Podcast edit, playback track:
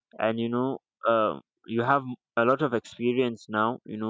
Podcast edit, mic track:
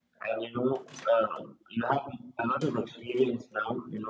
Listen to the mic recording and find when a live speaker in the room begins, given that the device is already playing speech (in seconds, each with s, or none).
none